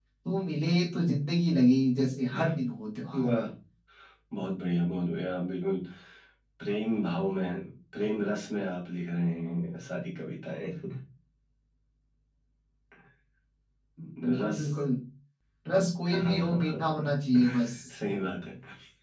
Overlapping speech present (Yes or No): Yes